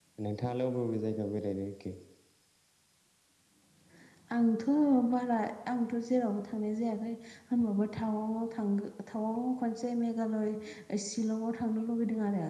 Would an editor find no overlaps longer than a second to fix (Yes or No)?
Yes